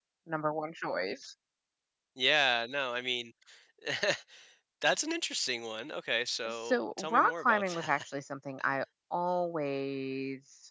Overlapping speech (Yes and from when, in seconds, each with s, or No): Yes, from 6.5 s